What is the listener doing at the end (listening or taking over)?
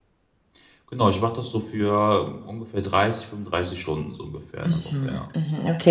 taking over